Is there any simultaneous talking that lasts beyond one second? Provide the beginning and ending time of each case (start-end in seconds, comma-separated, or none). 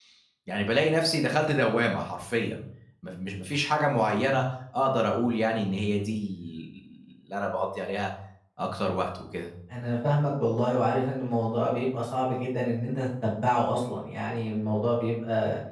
none